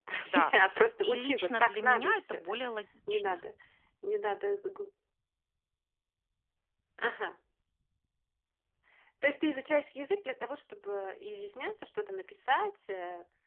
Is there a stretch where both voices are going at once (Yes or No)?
Yes